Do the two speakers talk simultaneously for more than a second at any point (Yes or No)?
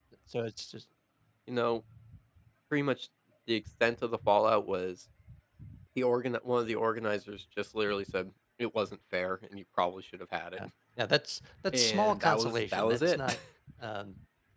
Yes